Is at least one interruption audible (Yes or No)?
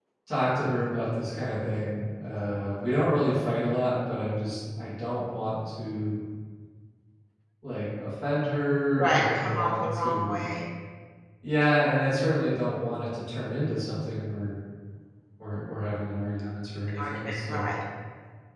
Yes